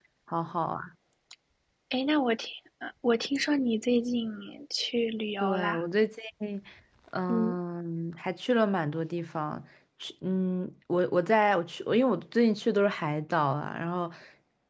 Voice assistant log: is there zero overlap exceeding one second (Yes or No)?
Yes